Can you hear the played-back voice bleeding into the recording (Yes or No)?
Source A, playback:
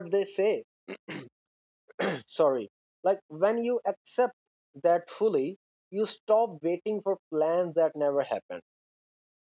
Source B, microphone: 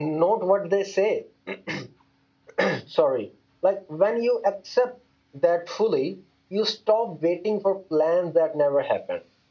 Yes